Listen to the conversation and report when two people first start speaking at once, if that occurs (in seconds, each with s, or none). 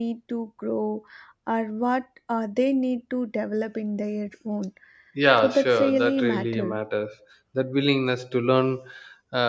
5.4 s